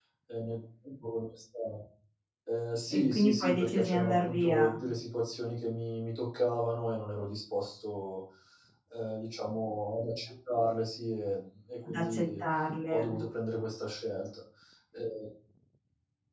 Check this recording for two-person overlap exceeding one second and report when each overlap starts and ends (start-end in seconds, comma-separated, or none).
2.9-4.8